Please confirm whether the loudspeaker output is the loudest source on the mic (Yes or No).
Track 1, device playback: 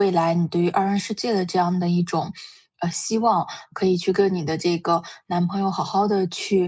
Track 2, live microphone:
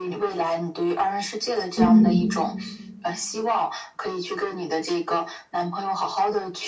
No